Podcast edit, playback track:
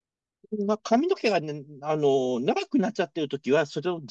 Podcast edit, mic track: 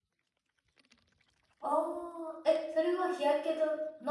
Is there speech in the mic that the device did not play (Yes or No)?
Yes